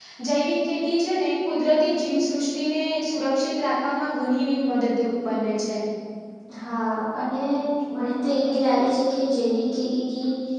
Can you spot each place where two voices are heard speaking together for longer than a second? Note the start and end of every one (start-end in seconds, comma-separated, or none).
none